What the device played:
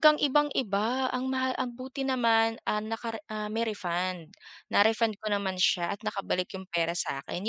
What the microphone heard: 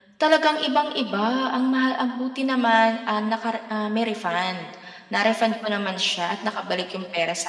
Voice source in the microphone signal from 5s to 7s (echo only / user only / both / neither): echo only